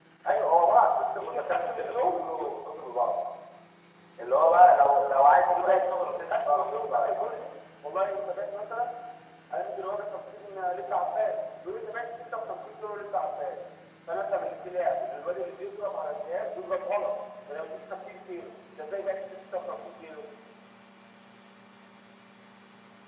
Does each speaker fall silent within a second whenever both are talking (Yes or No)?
No